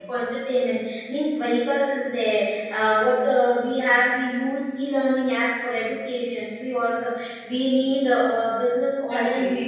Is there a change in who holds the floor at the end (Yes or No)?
Yes